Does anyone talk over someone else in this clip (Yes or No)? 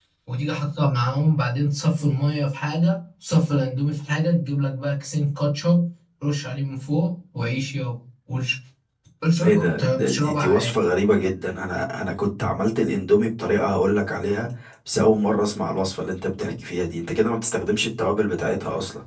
Yes